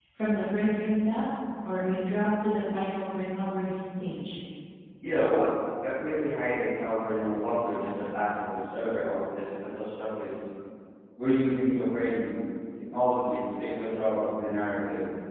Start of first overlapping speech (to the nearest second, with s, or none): none